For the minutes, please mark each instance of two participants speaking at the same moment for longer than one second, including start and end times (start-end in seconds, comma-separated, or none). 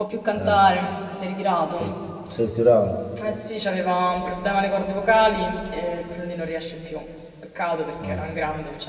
none